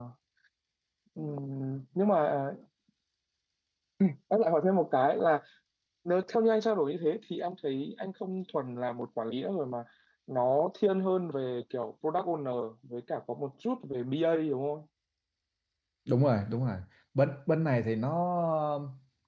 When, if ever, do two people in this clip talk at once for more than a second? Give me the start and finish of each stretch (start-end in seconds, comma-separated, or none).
none